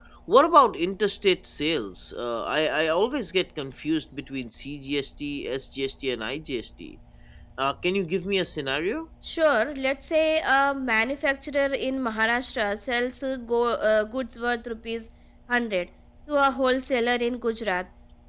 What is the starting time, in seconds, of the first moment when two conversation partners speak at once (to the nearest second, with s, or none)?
none